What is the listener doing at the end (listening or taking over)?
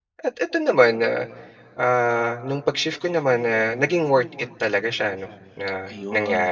taking over